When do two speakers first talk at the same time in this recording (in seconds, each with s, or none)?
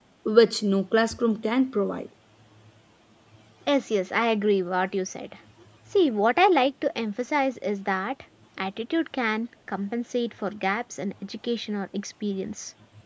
none